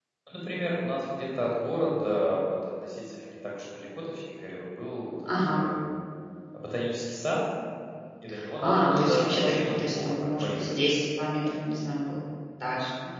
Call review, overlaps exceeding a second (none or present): present